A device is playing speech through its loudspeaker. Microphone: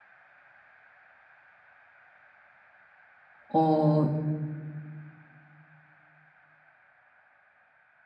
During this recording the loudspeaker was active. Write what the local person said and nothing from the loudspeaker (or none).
어